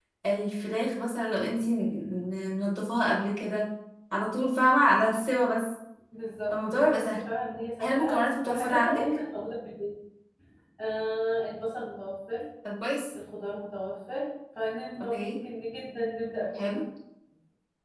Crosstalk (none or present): present